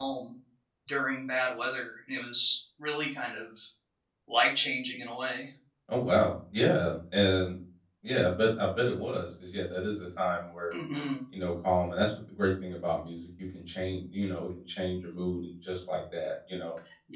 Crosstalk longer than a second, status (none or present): none